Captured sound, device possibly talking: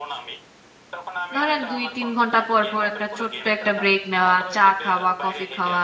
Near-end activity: present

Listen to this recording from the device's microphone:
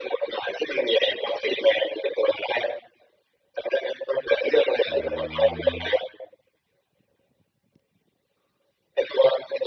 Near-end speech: present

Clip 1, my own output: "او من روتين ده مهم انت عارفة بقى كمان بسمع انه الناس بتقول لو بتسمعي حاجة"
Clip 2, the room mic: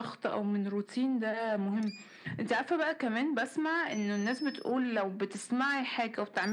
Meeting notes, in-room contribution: none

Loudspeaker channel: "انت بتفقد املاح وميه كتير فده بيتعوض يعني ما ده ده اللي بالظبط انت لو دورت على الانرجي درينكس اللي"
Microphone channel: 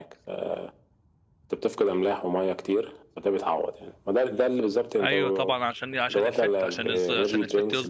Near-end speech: present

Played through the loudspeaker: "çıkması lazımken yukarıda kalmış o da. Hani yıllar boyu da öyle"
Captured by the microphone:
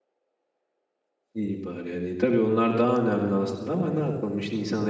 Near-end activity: present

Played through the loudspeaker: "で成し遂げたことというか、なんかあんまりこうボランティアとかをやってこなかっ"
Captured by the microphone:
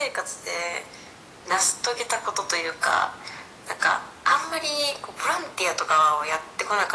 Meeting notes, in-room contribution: none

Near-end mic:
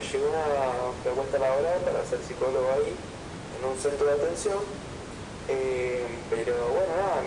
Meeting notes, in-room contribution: none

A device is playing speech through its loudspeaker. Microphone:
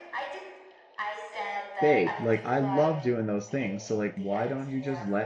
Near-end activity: present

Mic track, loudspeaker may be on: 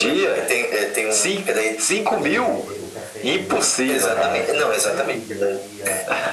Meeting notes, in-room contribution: present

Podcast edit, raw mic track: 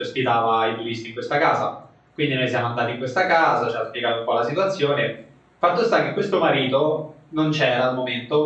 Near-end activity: present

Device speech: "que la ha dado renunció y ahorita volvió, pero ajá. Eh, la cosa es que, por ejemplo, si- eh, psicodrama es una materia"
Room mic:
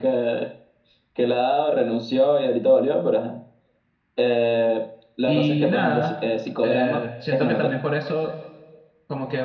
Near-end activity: present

